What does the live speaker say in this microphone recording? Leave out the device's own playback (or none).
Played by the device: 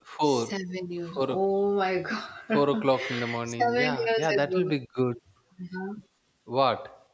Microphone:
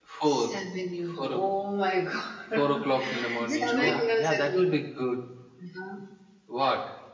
Yeah, is it true?